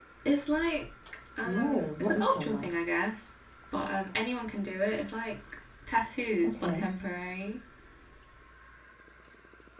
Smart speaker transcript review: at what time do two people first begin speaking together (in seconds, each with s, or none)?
1.4 s